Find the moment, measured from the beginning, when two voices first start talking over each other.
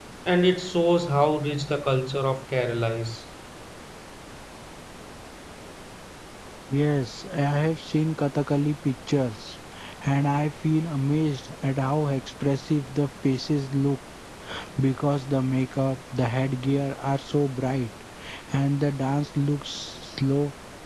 none

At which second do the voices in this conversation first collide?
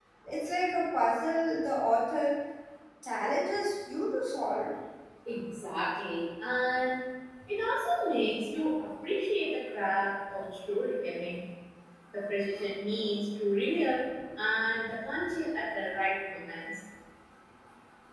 none

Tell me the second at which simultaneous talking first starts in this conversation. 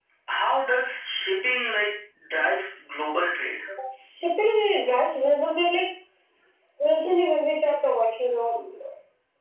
none

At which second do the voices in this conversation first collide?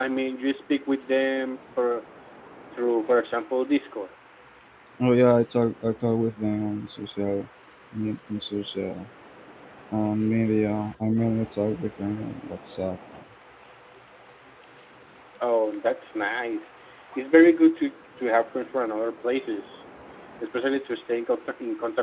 none

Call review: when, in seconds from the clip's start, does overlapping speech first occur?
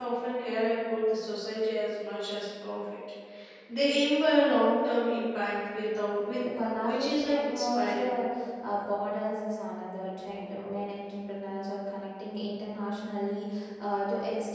6.8 s

